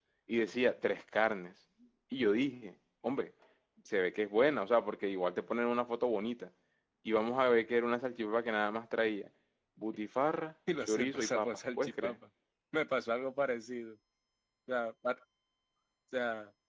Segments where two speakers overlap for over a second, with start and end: 10.8-12.2

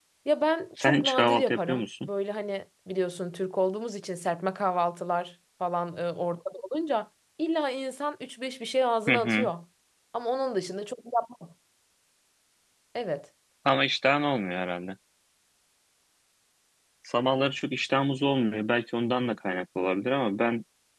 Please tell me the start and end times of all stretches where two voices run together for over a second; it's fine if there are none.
0.8-2.1

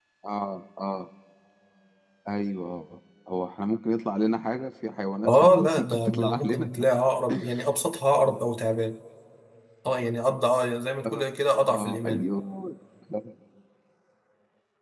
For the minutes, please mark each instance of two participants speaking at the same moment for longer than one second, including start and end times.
5.2-6.7

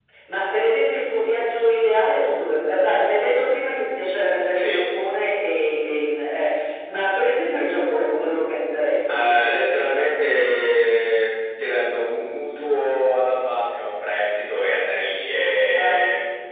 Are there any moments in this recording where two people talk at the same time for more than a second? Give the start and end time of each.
none

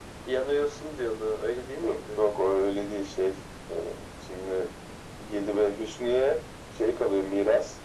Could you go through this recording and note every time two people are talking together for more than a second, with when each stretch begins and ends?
none

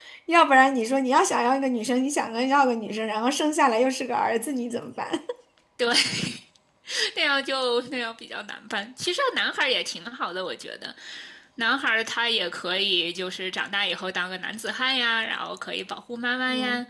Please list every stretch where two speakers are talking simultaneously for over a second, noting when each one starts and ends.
none

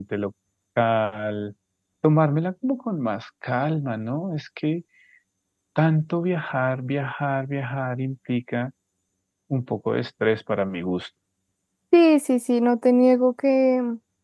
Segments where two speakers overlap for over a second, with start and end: none

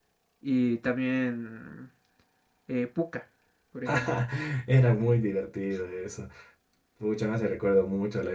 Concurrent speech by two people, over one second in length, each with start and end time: none

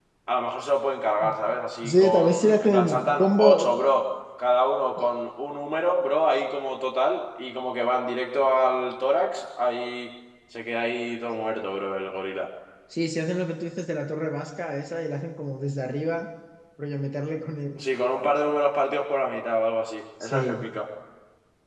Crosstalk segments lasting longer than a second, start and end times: 1.8-3.7

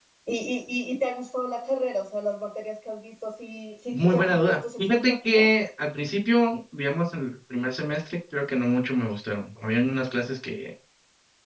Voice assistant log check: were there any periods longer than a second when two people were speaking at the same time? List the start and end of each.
3.9-5.5

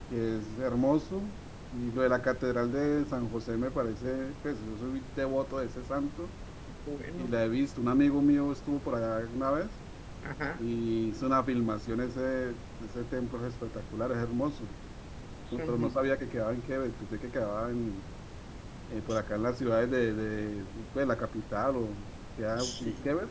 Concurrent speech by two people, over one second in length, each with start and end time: none

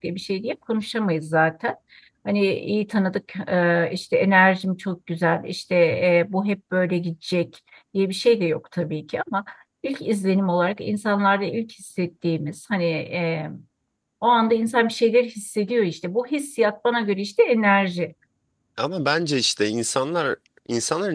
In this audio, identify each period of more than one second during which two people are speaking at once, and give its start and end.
none

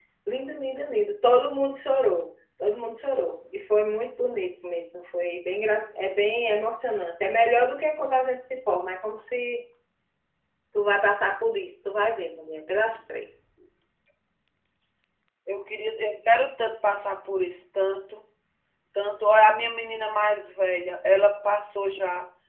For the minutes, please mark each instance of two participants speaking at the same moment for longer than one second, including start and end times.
none

